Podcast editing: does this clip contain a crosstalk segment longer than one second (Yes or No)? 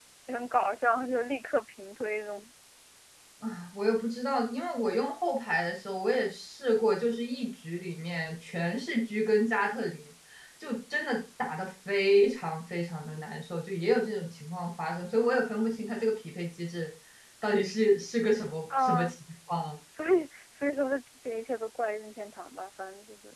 No